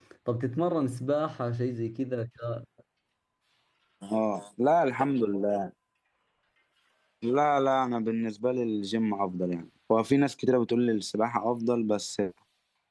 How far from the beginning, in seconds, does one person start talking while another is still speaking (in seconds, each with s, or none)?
none